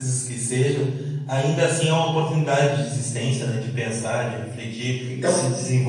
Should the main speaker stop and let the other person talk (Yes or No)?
No